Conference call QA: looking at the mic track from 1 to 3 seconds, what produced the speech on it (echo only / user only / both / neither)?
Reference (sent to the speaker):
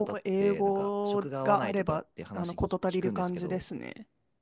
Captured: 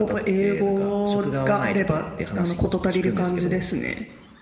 echo only